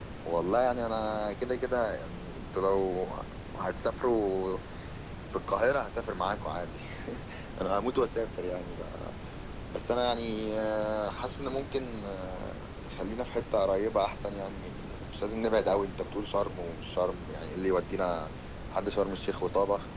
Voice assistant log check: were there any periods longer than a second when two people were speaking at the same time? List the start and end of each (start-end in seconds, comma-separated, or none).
none